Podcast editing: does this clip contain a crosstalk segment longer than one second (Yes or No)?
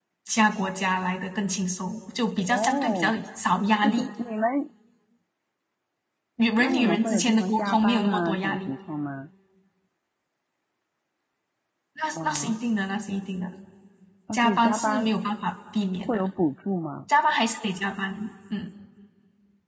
Yes